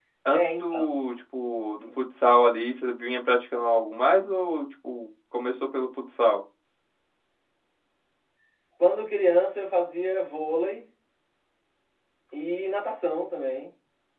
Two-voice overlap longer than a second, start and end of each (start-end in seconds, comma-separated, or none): none